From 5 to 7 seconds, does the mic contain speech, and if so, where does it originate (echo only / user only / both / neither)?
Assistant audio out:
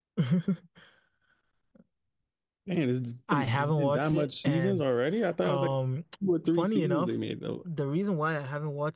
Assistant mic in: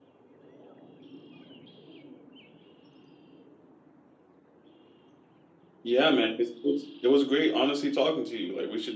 user only